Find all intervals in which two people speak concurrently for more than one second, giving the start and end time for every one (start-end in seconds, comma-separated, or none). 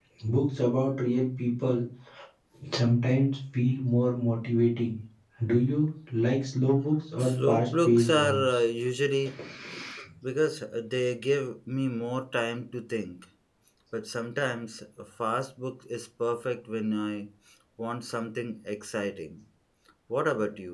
7.2-8.6